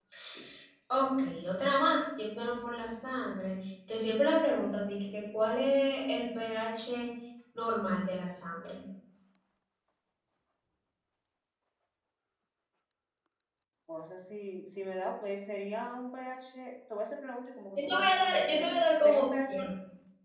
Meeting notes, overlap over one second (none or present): present